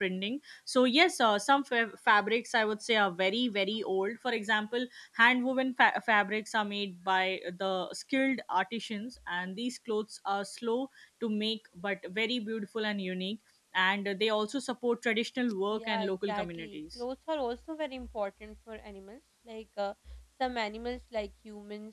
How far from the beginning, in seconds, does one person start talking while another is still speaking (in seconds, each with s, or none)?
15.7 s